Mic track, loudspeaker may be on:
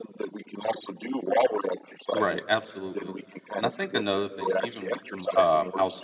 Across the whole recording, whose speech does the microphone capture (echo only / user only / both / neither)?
both